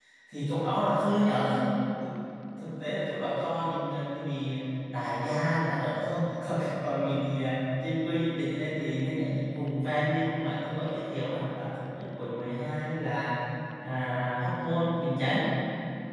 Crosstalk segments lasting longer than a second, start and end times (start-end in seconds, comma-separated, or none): none